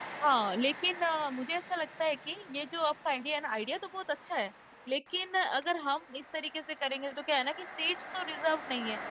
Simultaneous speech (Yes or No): No